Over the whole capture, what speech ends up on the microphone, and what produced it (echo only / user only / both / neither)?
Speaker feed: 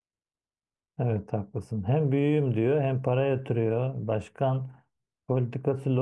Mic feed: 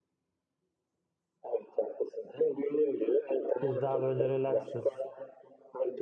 both